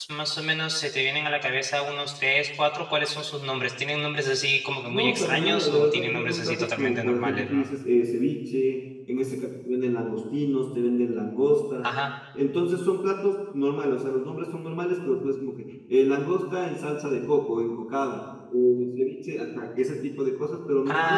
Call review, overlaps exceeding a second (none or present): present